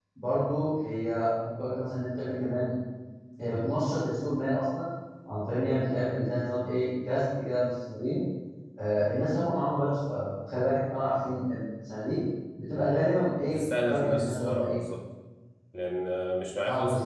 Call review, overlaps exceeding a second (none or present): present